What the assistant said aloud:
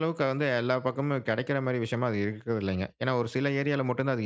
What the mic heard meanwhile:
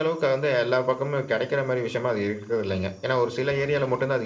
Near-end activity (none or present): none